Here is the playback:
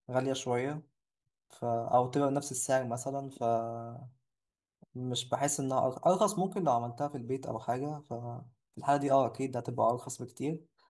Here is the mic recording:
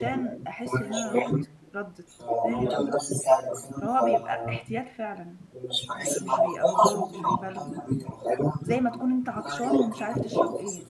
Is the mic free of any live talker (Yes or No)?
No